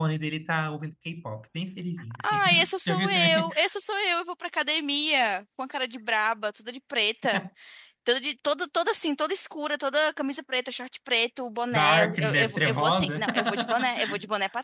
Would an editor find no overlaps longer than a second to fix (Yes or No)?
No